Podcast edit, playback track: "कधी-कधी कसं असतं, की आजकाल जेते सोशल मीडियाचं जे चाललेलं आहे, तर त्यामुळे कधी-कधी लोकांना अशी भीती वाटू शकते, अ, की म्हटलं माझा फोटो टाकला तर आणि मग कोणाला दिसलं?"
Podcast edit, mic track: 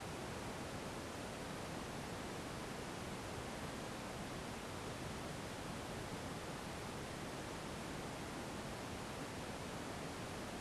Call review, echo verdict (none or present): none